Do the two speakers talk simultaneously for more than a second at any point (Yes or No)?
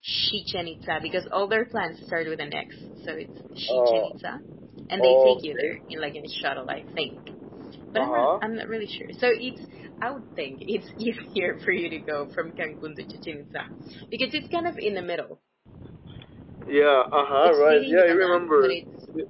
Yes